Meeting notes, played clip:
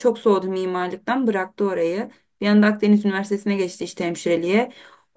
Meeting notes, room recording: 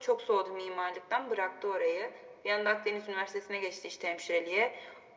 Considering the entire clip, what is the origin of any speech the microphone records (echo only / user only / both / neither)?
echo only